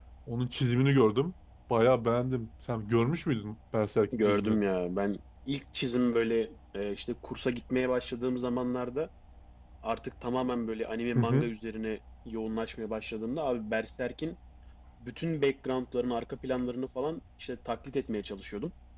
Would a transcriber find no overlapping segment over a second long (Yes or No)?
Yes